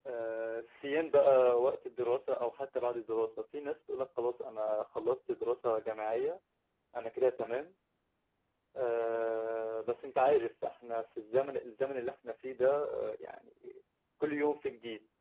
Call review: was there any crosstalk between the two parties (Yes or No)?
No